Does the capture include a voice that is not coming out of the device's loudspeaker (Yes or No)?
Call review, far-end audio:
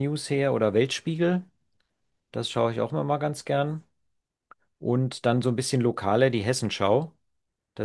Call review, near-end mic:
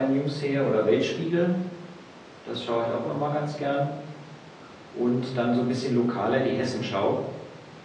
No